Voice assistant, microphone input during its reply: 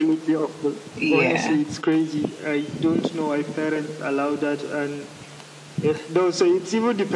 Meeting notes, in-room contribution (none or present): present